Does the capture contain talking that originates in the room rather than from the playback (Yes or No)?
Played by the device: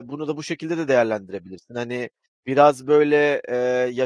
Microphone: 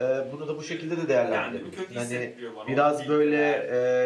Yes